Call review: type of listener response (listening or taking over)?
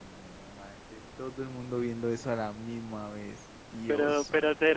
taking over